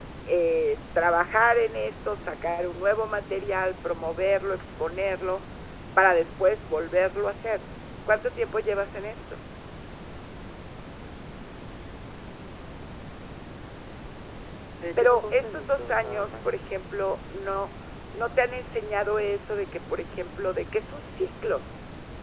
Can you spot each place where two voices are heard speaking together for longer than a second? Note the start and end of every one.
15.0-16.6

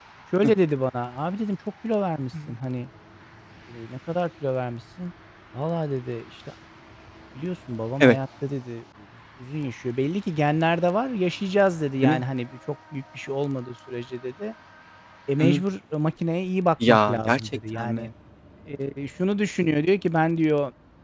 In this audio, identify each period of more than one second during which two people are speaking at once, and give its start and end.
16.9-18.1

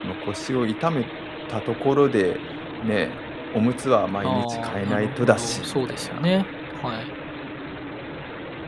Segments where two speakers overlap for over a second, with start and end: 4.2-6.2

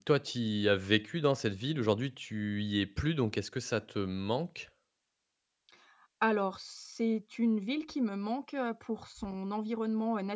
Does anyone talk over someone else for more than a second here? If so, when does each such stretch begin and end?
none

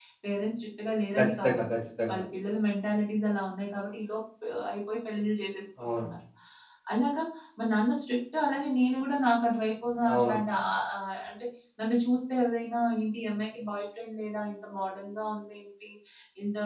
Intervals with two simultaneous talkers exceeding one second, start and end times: none

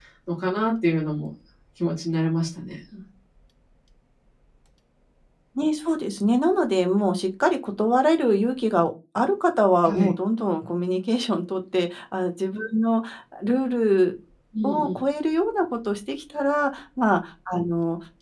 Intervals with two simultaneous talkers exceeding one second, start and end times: none

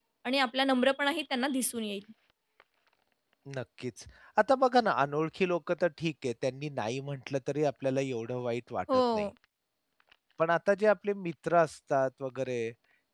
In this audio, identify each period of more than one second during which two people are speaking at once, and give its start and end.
none

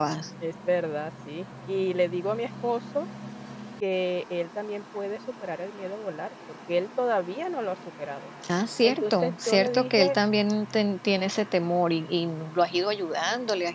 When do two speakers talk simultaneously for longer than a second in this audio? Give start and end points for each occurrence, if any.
8.8-10.2

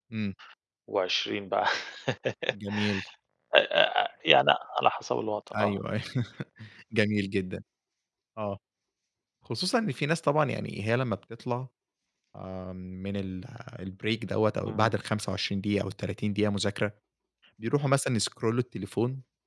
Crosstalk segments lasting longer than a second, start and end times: none

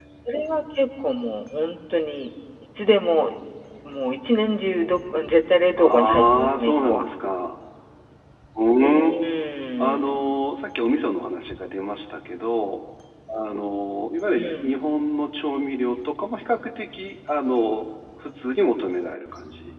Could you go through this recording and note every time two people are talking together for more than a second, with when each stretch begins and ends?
5.8-7.0

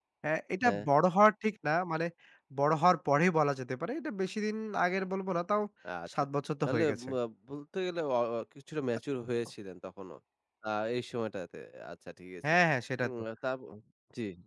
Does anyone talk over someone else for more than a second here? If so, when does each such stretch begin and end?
none

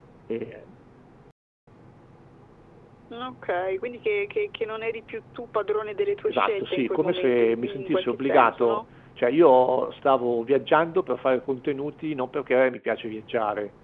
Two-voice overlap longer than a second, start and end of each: 6.3-8.8

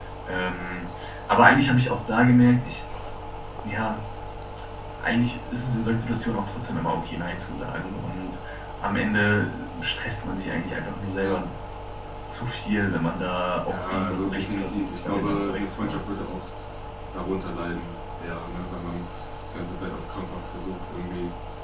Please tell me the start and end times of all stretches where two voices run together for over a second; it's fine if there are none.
13.7-16.2

